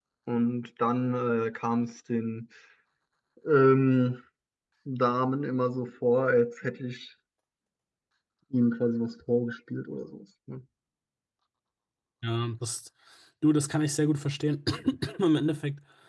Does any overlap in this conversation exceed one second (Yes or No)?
No